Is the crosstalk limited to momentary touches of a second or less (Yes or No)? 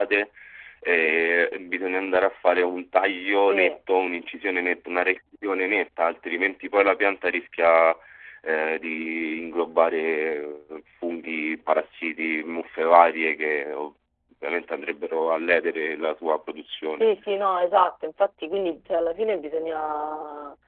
Yes